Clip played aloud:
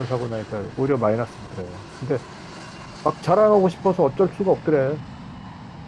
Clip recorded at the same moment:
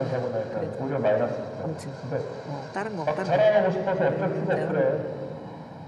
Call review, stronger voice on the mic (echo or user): echo